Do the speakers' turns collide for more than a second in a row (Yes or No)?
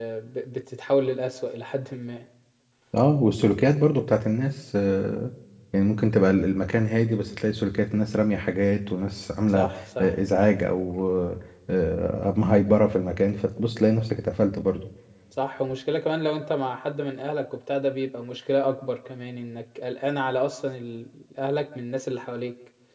No